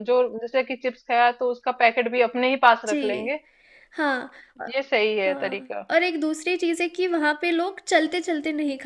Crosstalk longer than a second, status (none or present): none